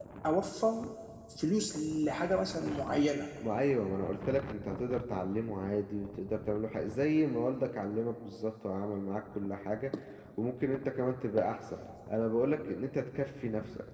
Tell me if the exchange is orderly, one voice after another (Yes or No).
Yes